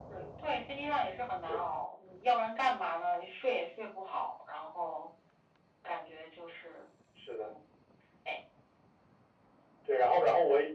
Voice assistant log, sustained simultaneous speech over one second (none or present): none